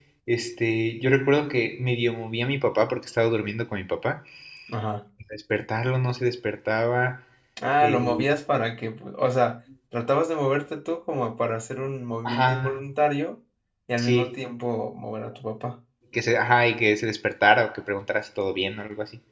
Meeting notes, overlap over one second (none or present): none